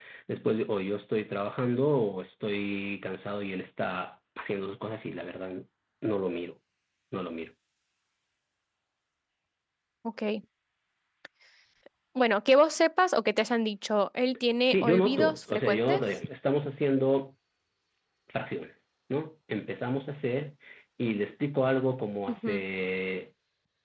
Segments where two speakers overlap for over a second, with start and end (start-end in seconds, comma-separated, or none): 14.6-16.0